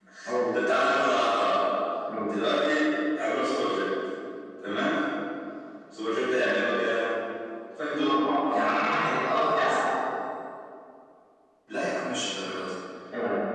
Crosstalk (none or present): present